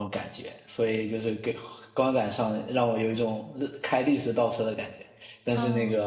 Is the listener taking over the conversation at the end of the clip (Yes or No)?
No